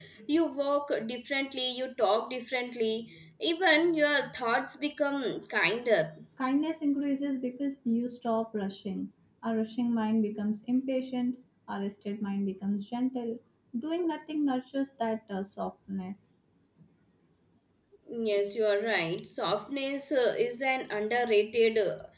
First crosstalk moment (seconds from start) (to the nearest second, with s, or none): none